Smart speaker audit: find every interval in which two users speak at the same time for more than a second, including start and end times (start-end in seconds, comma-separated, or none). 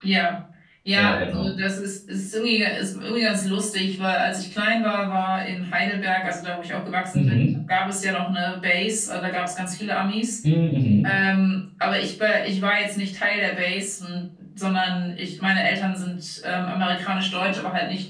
none